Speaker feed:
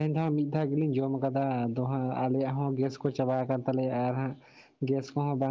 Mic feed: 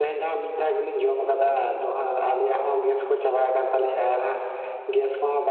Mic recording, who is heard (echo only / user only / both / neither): echo only